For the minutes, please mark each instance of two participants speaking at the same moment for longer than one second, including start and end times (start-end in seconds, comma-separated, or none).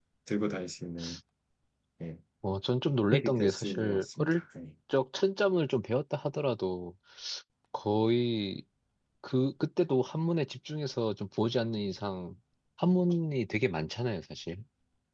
3.1-4.4